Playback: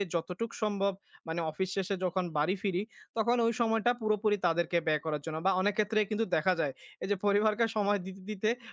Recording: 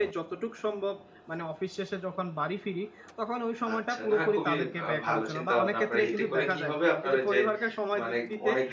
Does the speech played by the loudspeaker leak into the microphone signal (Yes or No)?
Yes